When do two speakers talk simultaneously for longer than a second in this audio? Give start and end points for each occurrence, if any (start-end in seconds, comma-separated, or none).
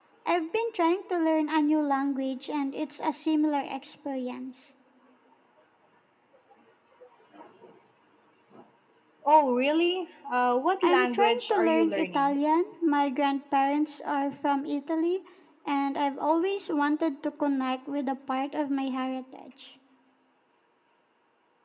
10.8-12.3